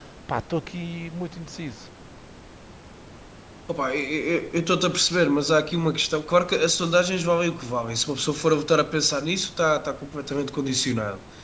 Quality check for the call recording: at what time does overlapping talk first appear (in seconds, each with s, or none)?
none